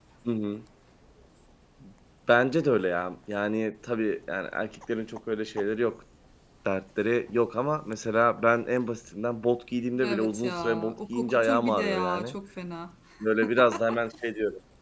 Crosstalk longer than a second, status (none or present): present